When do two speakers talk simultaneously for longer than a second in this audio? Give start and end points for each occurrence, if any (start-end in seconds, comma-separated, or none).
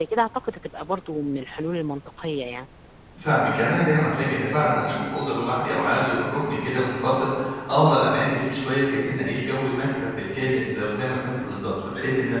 none